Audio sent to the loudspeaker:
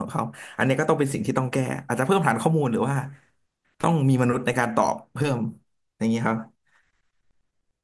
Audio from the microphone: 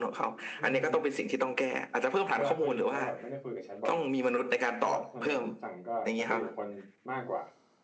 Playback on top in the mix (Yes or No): Yes